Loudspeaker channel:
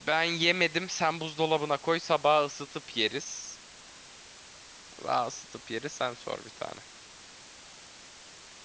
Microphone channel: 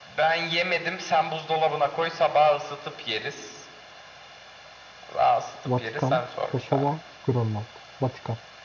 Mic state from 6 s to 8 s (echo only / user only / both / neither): both